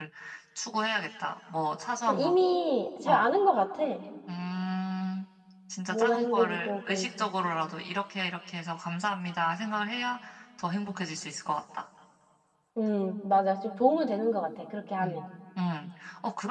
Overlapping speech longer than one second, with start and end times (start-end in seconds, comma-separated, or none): 5.9-7.2